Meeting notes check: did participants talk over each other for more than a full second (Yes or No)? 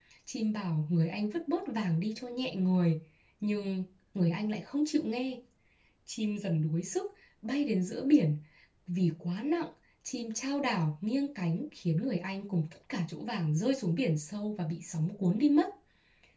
No